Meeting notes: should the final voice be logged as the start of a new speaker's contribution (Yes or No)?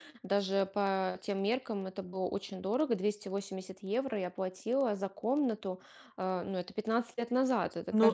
Yes